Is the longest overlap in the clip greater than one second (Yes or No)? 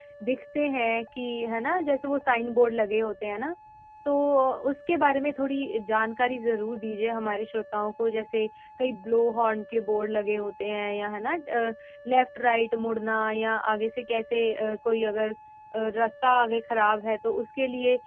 No